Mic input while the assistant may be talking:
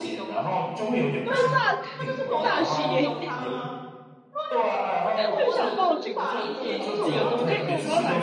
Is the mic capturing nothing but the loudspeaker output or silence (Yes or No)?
No